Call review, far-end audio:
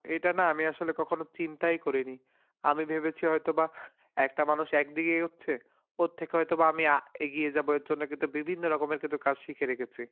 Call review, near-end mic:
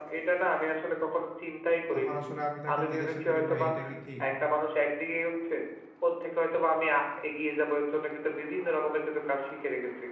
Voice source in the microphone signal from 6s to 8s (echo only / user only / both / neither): echo only